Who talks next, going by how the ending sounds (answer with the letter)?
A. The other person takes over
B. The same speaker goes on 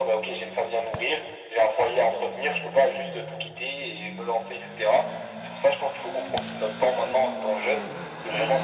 B